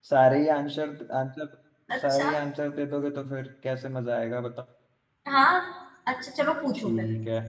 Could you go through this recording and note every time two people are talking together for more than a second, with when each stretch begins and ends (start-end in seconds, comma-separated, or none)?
none